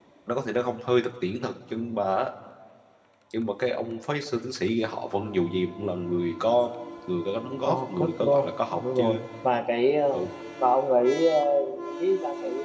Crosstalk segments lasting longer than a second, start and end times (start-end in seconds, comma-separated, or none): 7.6-9.2